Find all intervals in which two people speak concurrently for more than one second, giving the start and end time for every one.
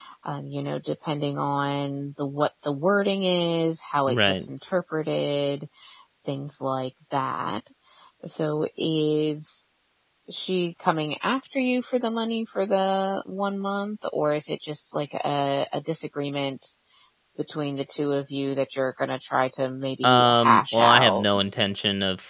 20.0-21.2

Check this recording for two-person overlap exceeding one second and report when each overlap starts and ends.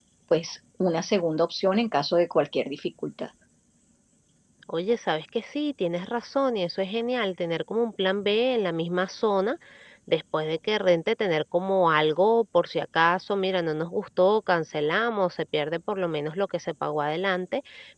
none

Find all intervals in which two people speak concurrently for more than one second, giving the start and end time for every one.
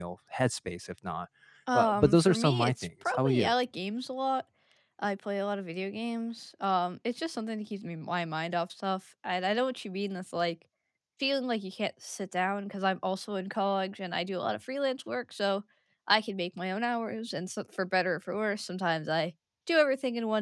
1.7-3.5

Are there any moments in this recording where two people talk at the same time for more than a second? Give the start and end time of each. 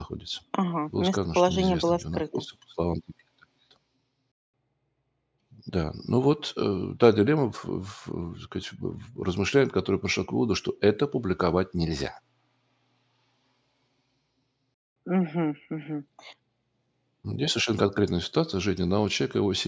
1.0-2.2

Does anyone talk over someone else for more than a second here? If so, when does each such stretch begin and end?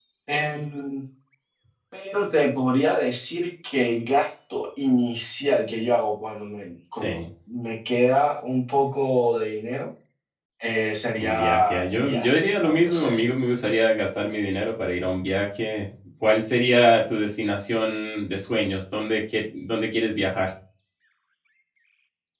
11.2-13.2

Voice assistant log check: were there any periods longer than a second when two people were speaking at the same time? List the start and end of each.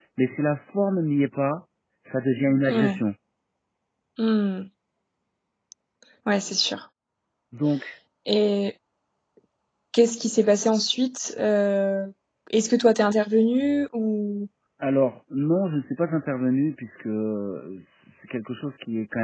none

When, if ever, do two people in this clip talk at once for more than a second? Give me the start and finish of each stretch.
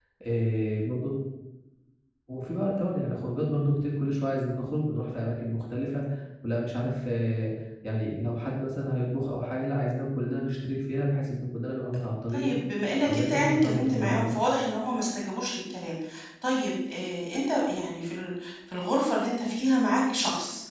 13.0-14.4

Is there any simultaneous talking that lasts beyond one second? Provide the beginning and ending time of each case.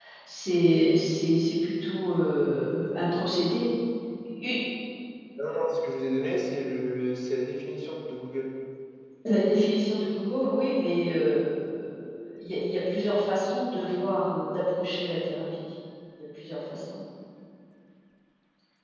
none

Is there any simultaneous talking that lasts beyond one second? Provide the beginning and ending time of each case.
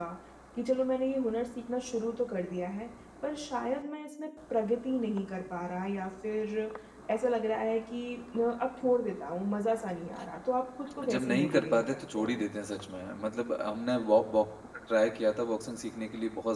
11.1-12.4

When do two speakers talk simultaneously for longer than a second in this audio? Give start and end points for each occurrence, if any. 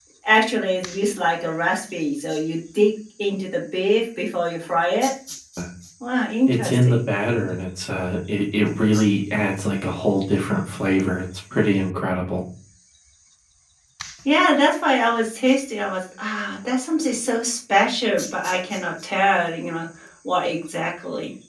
none

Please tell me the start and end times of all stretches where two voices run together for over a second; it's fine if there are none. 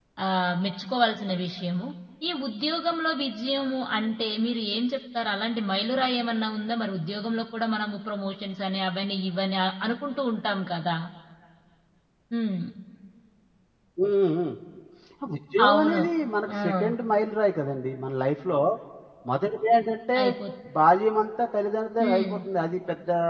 none

